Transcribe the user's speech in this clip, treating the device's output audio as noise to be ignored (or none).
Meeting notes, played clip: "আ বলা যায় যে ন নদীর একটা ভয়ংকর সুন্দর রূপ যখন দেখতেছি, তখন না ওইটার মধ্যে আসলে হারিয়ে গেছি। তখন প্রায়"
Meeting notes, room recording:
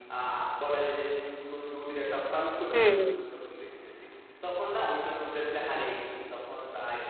হুম, হুম।